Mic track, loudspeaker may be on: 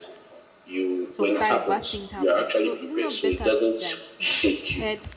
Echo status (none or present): present